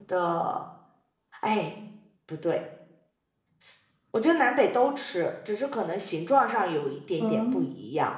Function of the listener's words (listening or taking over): taking over